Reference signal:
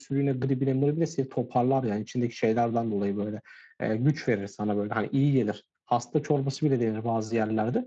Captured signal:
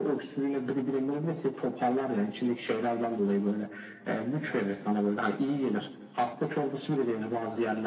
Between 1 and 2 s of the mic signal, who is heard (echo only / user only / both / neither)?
echo only